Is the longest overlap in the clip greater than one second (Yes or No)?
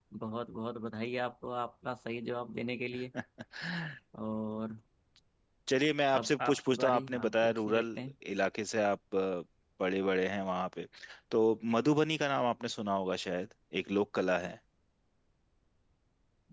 Yes